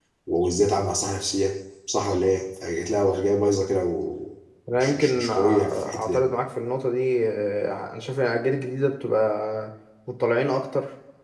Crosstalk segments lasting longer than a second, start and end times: 4.8-6.2

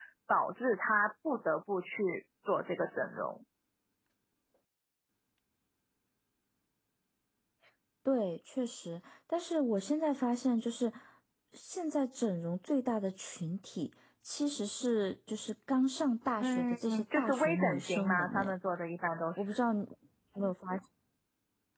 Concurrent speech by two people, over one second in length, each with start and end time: 16.4-18.5

